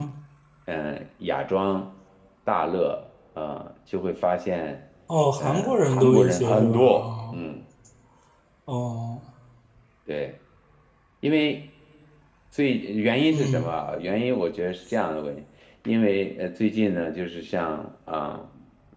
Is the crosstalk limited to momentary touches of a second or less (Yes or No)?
No